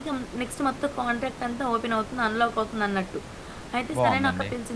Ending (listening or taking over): listening